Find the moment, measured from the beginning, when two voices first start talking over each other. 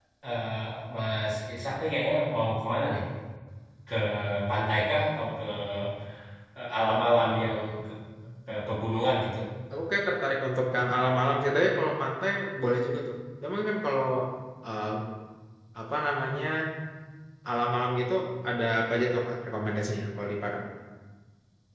none

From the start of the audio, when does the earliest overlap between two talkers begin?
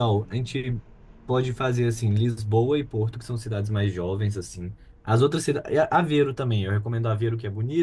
none

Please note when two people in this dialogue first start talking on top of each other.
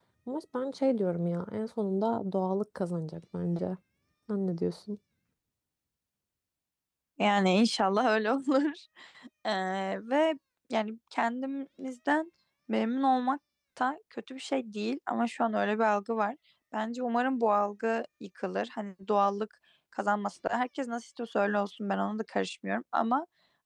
none

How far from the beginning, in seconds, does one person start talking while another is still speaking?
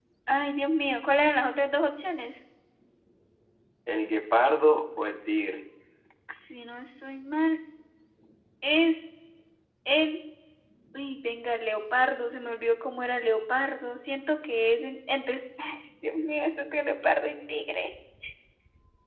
none

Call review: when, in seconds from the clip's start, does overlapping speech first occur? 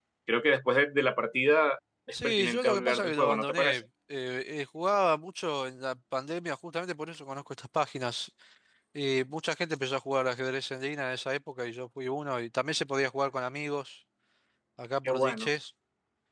2.2 s

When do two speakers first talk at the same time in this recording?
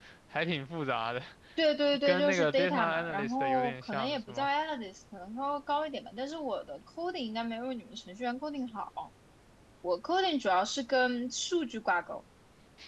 2.0 s

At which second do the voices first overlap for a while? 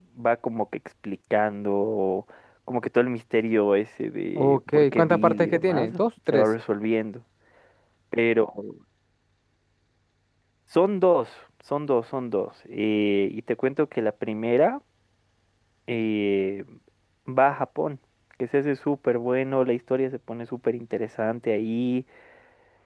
4.4 s

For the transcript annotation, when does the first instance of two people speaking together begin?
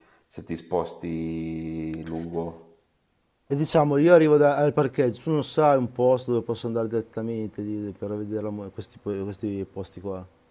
none

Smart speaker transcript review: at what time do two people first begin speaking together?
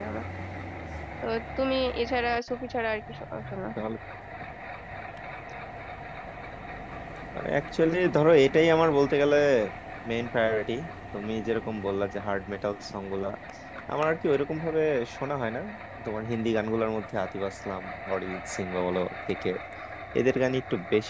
none

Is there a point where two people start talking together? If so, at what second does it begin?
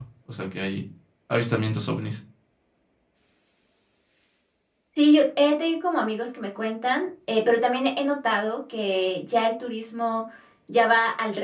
none

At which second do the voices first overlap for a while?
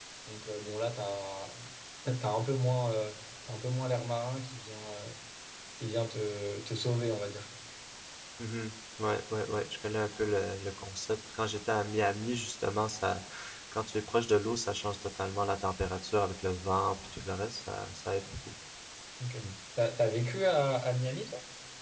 none

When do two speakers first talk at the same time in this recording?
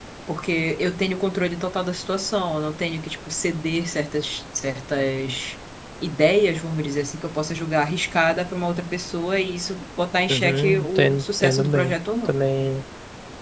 10.2 s

